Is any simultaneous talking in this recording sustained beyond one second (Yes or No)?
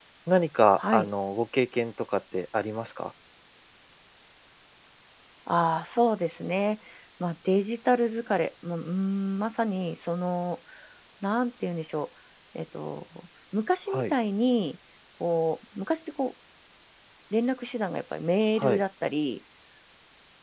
No